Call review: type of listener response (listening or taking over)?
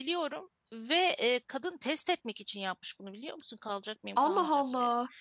taking over